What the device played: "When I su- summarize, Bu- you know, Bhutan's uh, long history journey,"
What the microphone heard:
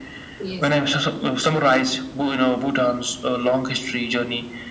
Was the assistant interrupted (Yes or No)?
Yes